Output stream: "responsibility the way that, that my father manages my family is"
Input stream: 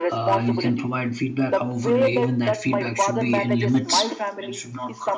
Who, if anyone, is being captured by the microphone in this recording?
both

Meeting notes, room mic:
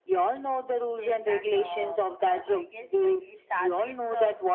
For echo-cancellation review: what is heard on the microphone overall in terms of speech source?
both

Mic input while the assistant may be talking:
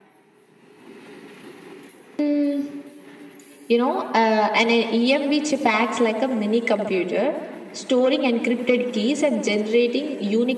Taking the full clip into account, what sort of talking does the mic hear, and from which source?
echo only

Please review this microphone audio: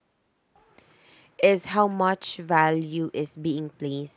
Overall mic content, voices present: user only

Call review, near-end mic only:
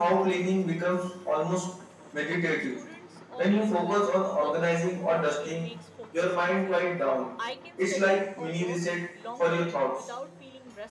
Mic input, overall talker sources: both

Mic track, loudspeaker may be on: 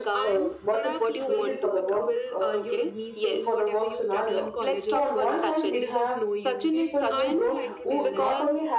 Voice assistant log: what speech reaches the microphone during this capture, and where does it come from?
both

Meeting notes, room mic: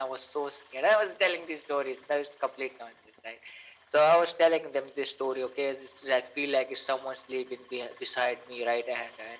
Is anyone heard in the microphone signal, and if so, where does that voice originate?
echo only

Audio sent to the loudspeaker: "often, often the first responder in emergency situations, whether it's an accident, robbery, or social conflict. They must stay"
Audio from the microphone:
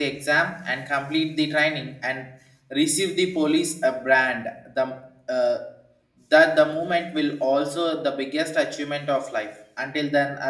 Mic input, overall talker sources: user only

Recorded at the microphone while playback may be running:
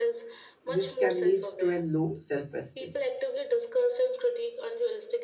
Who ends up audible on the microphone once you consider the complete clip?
both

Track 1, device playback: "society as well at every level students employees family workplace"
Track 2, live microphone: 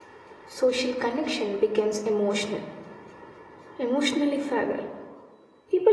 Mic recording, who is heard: user only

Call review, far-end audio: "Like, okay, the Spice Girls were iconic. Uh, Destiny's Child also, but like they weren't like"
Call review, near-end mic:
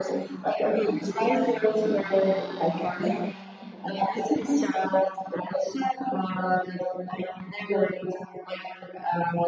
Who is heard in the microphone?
echo only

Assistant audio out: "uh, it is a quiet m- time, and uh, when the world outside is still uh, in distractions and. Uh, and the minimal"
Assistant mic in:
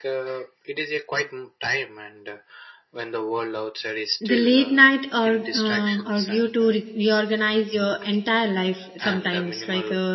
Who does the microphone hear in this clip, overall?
both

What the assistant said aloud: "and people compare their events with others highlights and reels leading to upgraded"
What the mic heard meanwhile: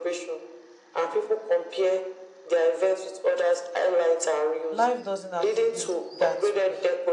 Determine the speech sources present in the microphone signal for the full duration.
both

